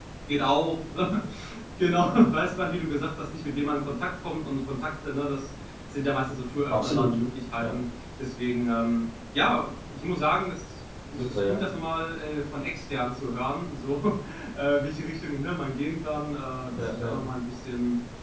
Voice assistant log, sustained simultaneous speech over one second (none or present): none